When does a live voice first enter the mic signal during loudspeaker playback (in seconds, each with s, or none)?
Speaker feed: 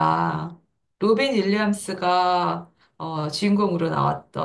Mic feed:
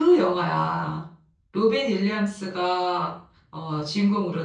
none